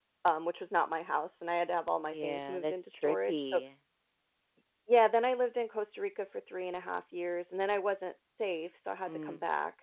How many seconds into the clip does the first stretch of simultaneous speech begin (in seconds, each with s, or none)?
2.0 s